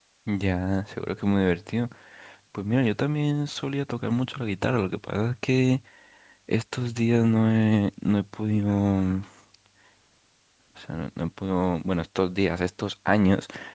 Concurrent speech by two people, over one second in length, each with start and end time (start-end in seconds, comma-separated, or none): none